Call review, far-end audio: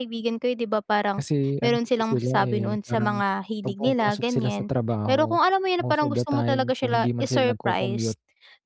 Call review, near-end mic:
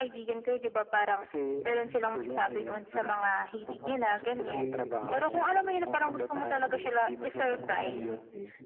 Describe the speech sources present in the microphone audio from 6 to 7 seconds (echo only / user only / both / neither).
both